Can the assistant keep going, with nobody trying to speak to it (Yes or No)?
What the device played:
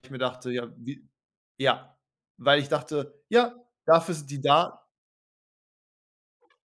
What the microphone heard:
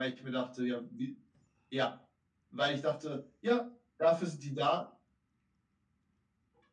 Yes